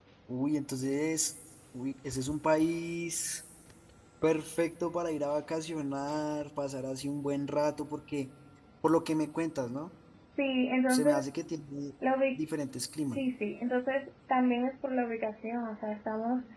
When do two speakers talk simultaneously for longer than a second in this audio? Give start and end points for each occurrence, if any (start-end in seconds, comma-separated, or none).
none